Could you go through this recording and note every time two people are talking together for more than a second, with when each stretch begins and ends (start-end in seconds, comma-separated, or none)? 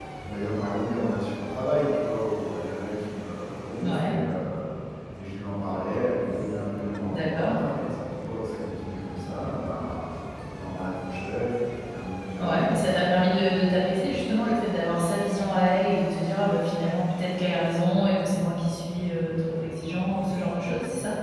none